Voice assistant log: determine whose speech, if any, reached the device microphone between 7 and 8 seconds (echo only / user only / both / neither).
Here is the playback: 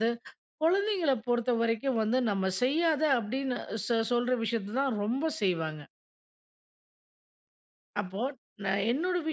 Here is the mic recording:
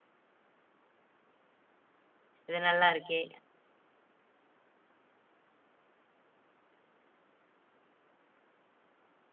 neither